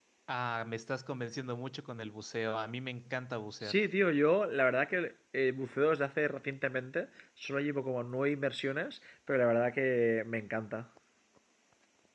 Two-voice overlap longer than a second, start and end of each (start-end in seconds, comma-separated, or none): none